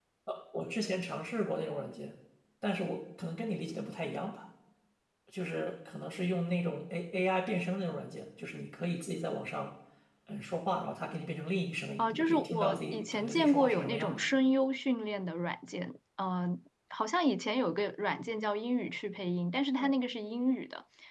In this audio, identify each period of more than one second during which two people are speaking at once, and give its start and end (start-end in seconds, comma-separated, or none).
12.0-14.2